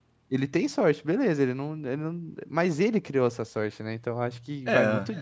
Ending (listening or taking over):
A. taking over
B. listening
B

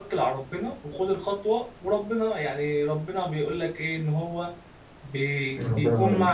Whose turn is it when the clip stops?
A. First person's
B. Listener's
A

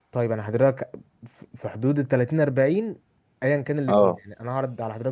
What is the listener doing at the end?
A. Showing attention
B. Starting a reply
A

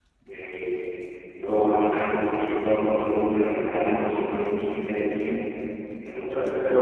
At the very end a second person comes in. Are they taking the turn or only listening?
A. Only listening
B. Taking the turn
A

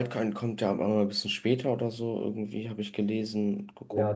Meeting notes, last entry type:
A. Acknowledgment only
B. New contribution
B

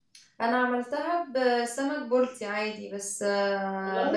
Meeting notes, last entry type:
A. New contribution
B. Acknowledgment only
B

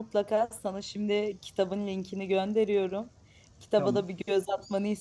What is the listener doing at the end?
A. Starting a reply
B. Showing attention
B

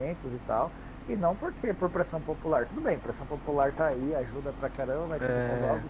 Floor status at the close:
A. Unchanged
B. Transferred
A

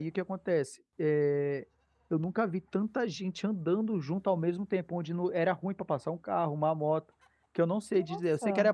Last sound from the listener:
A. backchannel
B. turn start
A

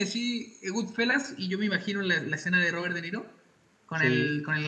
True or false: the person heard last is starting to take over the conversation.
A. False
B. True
A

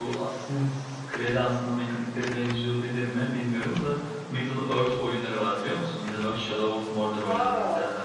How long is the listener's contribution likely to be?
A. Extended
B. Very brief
A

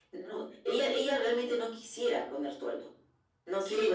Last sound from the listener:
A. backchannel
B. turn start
B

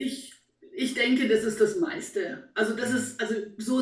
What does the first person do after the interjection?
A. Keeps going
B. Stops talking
A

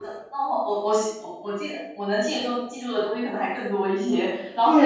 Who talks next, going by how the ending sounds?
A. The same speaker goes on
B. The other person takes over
A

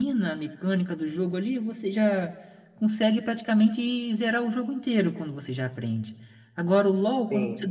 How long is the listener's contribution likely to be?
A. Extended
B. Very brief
B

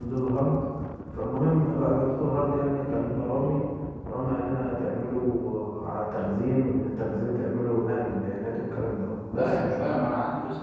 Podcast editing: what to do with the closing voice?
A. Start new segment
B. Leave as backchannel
A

